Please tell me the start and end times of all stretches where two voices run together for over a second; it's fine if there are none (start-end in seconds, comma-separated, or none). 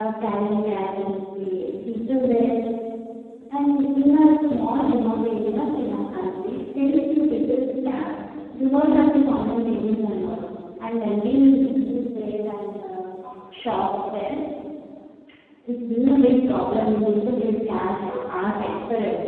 none